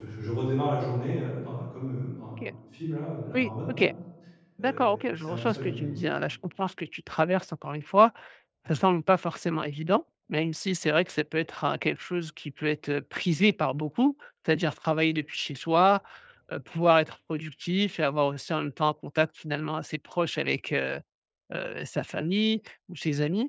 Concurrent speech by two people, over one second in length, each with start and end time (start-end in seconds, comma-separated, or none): 4.6-5.9